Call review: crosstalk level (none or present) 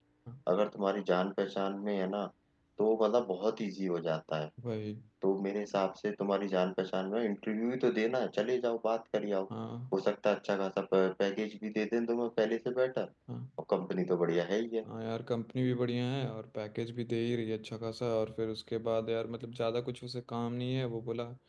none